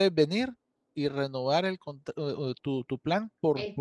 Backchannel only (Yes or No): Yes